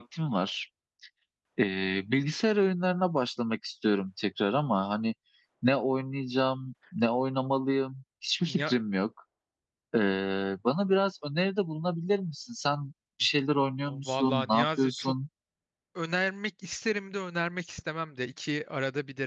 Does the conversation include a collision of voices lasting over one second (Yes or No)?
Yes